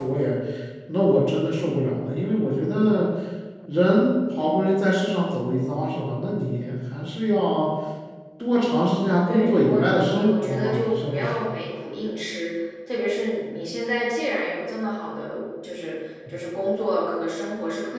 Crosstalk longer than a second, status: present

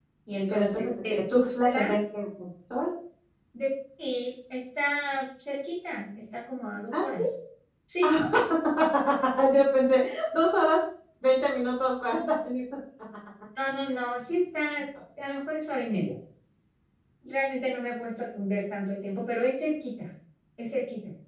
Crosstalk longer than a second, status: present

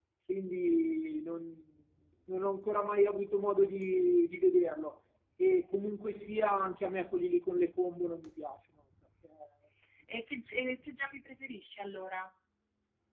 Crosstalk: none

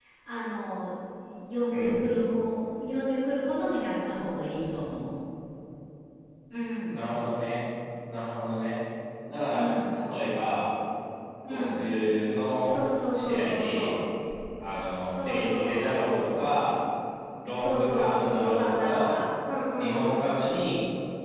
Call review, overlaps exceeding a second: present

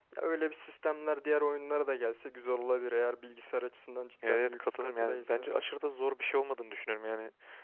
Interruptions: present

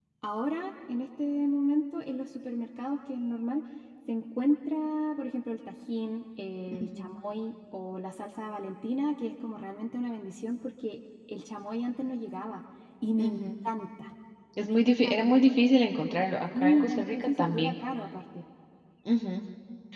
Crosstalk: present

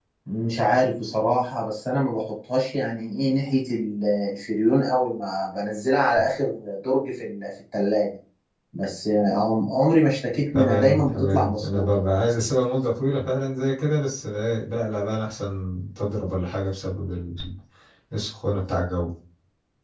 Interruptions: present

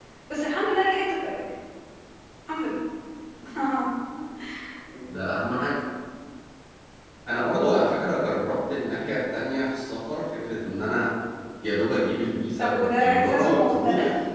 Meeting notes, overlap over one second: present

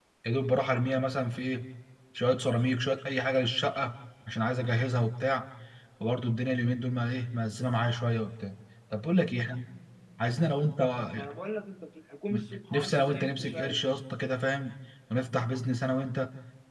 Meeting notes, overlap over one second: present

